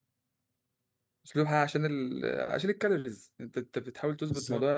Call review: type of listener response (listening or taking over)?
listening